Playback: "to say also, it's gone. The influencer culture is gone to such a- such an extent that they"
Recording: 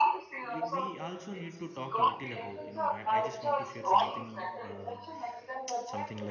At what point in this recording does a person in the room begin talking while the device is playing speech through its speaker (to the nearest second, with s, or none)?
0 s